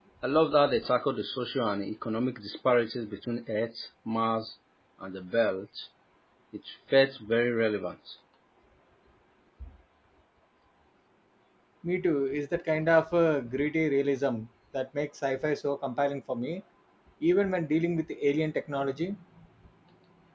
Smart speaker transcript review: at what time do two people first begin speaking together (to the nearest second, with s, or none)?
none